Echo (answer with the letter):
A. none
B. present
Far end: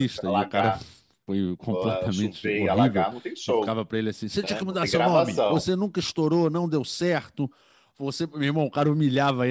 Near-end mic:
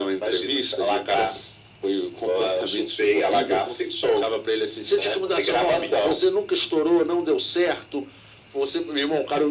B